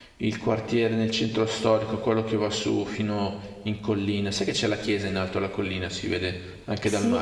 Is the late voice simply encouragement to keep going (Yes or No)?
No